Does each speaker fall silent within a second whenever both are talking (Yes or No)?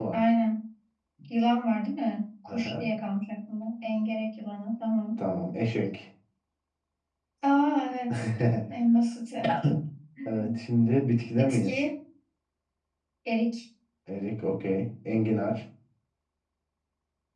Yes